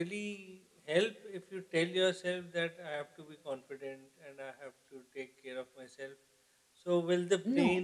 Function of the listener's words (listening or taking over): listening